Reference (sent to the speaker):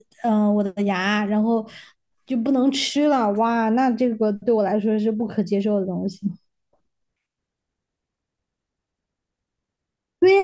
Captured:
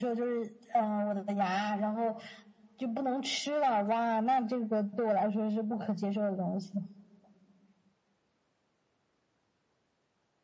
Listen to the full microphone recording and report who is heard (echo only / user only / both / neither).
echo only